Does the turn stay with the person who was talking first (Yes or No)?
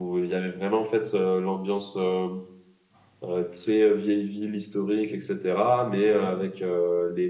Yes